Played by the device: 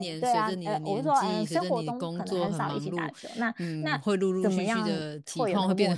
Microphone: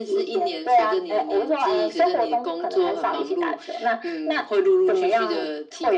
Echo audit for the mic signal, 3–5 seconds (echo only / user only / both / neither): echo only